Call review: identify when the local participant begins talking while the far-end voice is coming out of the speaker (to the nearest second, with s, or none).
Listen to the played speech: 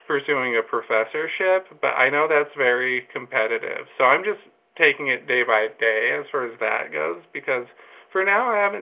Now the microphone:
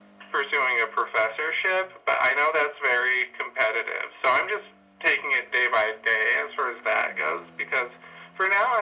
none